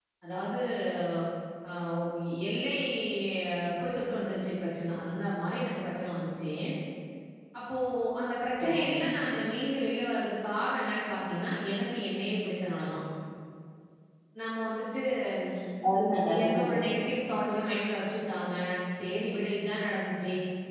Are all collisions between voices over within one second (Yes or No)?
Yes